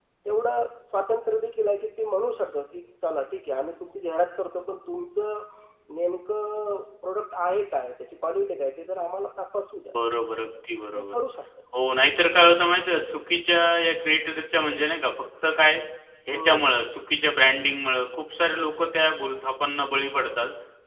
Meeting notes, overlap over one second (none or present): none